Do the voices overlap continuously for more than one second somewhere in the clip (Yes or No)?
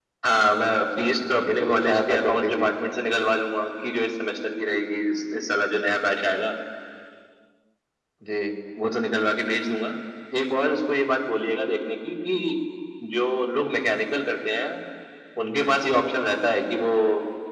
Yes